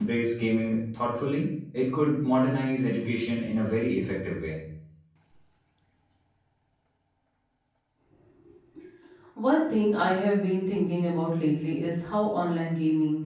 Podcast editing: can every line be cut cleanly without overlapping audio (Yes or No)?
Yes